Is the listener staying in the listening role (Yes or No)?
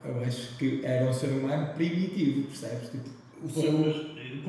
No